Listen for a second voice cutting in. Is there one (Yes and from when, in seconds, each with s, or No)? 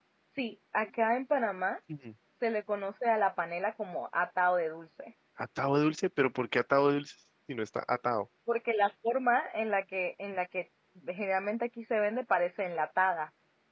No